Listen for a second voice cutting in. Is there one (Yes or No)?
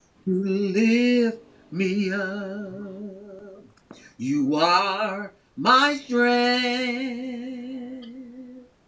No